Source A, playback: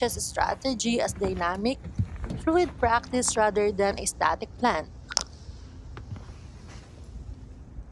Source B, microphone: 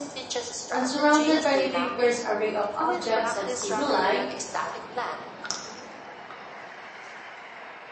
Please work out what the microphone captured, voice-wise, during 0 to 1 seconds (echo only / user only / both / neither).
both